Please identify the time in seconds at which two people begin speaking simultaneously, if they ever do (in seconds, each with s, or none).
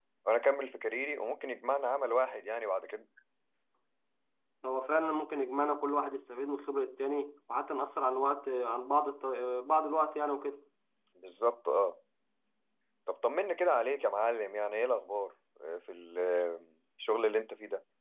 none